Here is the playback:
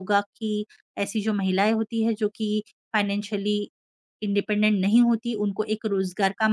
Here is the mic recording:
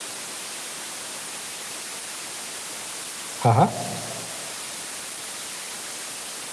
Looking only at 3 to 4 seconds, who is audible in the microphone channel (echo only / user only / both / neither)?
user only